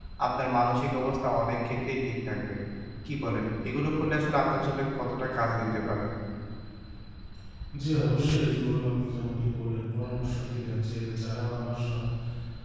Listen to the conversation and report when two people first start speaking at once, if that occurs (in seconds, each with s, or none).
none